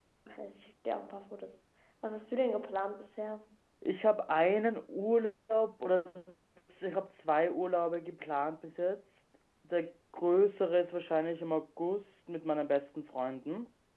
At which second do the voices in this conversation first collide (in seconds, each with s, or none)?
none